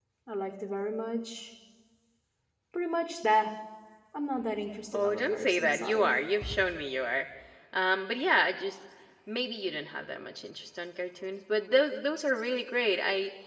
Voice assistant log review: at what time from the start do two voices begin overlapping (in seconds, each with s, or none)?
4.9 s